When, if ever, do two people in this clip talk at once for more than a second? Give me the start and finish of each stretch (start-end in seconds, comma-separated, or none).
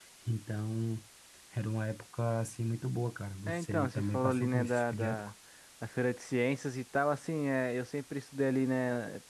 3.5-5.3